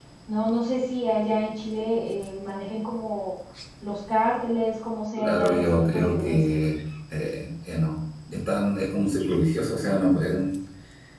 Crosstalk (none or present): present